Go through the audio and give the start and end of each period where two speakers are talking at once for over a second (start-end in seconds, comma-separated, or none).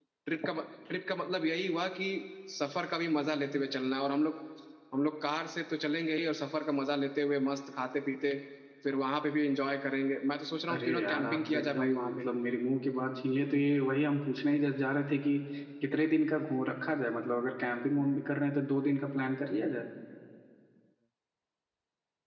10.7-12.2